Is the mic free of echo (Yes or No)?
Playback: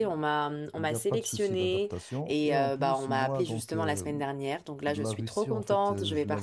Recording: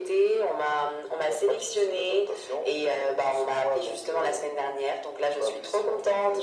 No